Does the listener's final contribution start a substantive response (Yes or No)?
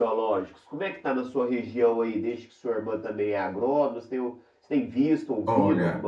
Yes